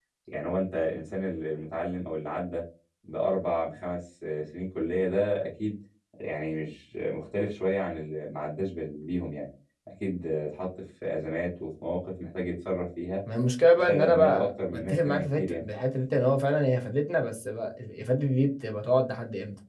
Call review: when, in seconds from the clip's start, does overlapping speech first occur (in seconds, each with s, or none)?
13.8 s